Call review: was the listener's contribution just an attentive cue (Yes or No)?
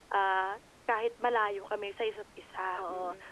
No